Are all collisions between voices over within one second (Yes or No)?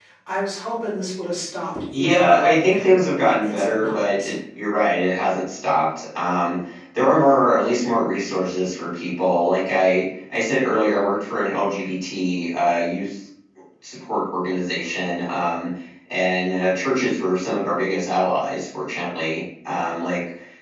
No